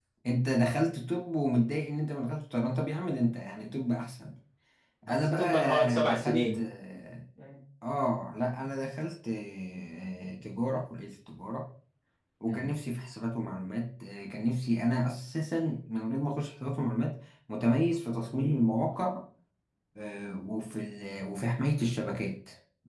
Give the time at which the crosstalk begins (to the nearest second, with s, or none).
5 s